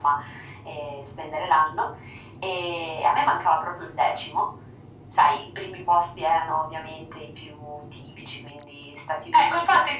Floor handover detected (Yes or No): Yes